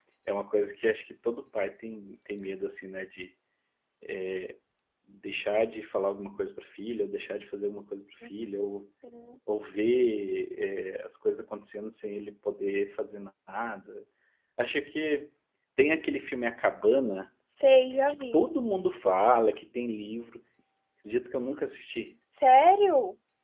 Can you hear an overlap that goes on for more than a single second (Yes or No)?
No